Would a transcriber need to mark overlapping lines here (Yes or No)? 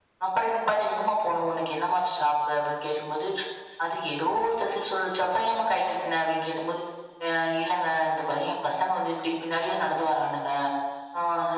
No